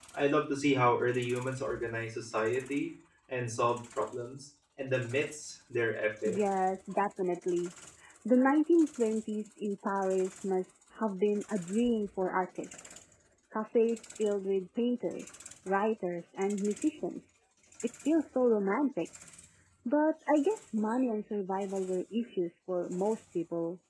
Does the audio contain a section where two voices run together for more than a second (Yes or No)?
No